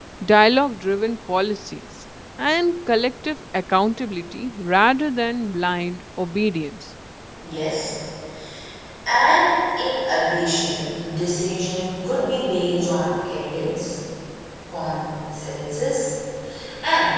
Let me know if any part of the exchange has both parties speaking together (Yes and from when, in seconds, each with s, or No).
No